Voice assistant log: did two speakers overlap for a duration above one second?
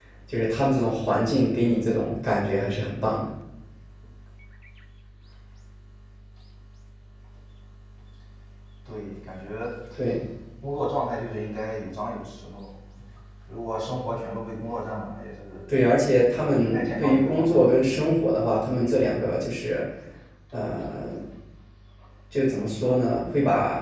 Yes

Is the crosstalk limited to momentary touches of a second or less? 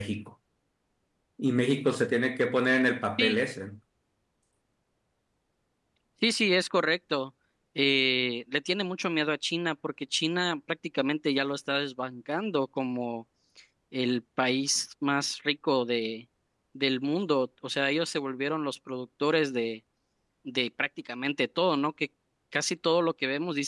Yes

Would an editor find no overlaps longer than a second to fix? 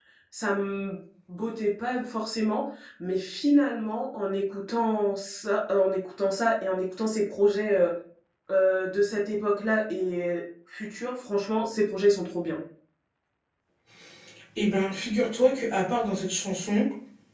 Yes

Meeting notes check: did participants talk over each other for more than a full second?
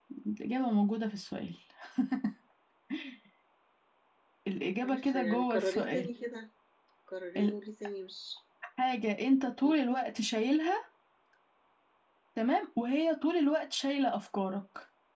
Yes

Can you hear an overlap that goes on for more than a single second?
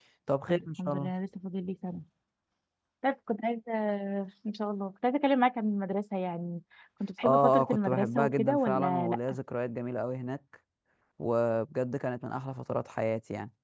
Yes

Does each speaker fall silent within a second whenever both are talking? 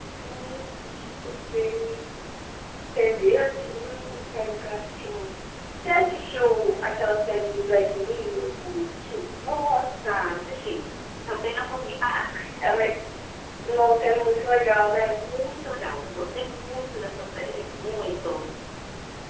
Yes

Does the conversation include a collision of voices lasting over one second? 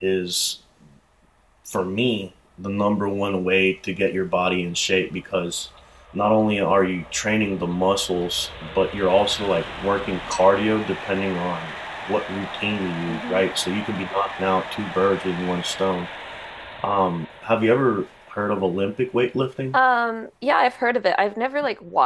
No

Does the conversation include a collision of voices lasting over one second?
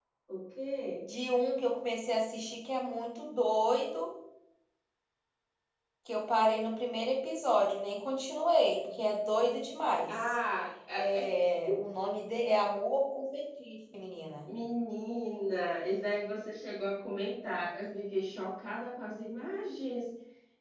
No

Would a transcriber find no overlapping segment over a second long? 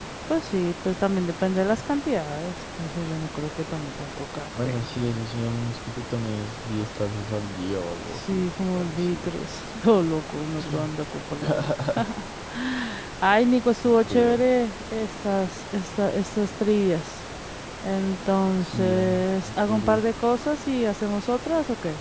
No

